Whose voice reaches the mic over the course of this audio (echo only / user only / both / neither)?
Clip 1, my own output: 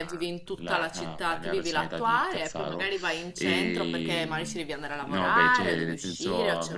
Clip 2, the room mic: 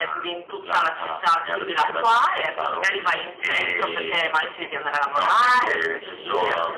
echo only